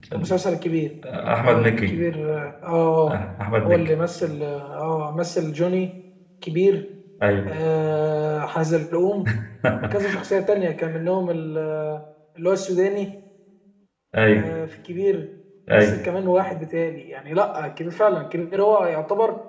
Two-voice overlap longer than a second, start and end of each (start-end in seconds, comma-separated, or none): none